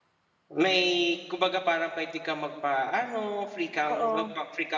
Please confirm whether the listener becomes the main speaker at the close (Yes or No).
No